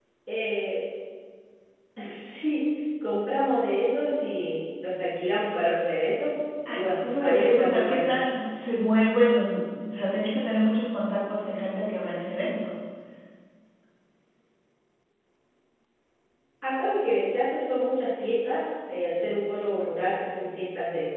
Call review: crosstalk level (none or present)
present